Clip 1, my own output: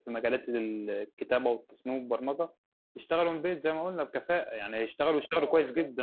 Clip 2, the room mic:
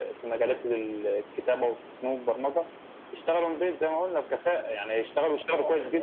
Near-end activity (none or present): none